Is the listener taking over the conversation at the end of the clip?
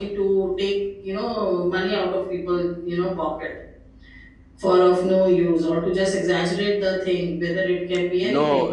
Yes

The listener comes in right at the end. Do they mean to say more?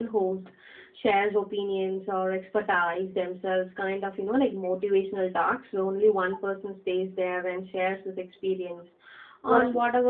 No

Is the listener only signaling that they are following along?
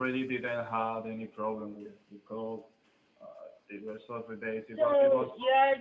No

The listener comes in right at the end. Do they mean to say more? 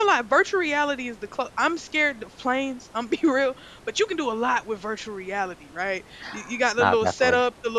No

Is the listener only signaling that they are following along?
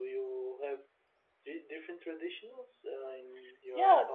No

